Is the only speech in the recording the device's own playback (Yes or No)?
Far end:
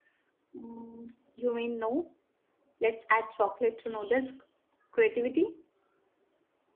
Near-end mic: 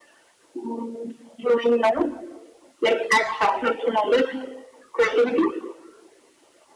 Yes